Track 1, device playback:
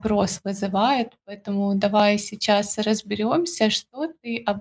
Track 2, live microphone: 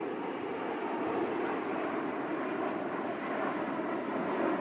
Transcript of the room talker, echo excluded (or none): none